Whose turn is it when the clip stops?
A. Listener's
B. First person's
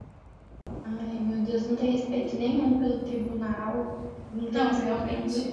B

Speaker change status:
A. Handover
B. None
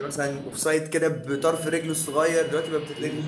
A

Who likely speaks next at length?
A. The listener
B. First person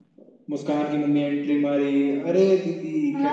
A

